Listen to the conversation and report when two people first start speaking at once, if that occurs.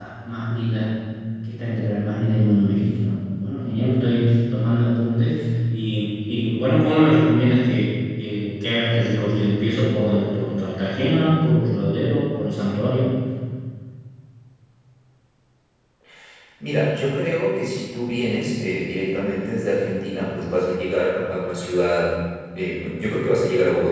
none

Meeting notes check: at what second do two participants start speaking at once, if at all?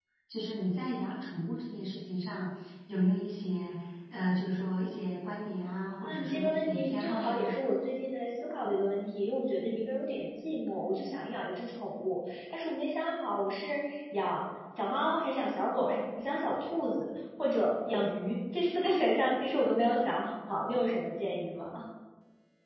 6 s

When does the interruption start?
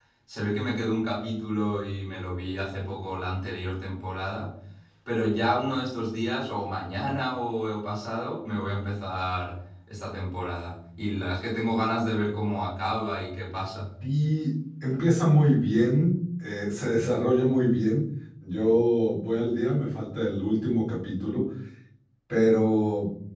none

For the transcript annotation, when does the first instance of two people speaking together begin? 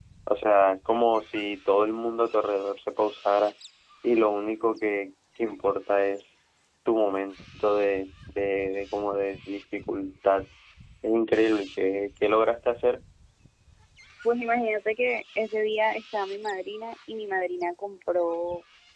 none

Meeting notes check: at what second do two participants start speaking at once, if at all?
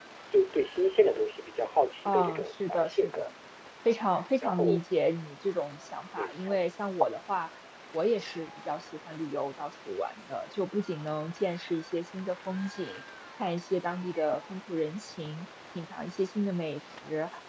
2 s

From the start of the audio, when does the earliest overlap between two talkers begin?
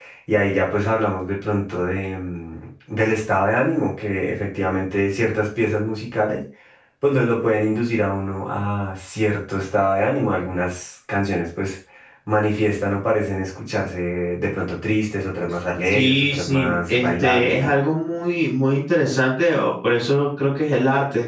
16 s

